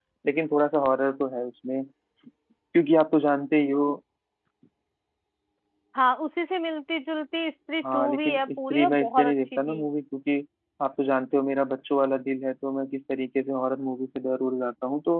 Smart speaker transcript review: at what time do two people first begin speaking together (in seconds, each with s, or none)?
7.8 s